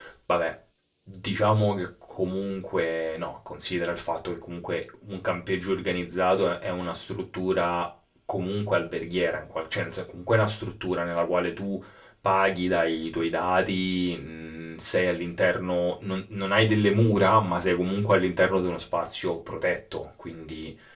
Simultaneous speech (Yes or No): No